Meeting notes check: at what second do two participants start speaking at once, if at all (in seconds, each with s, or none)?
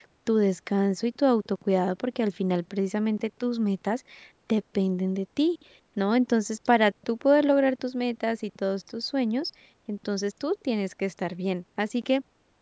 none